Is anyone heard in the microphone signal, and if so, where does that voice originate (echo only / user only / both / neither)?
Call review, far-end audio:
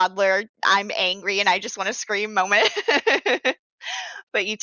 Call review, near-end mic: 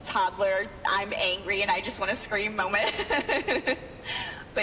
echo only